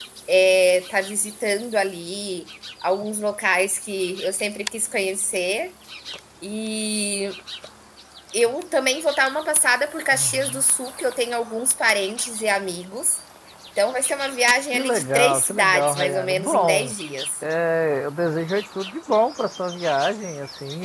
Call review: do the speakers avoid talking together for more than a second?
No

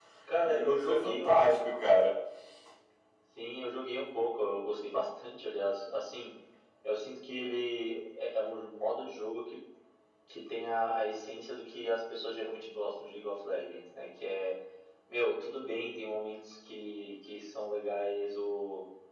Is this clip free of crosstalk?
No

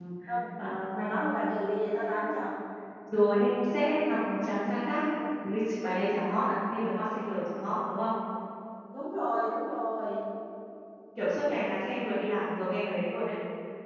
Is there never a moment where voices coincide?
Yes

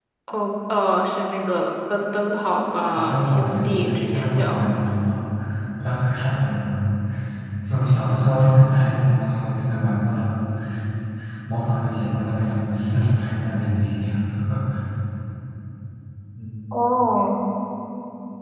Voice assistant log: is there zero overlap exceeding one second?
No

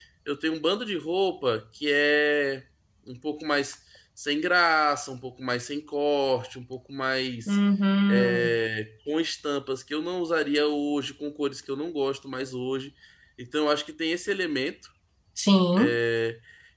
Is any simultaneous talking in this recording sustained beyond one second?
No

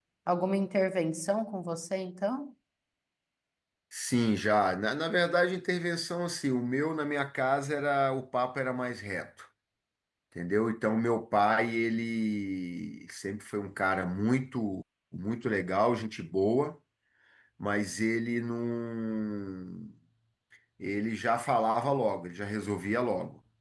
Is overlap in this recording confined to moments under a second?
Yes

